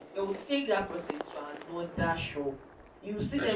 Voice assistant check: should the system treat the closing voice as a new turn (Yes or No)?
No